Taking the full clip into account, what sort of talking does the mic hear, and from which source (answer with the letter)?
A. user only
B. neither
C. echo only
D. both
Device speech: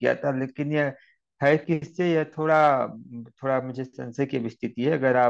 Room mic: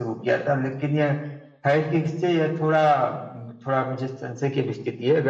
C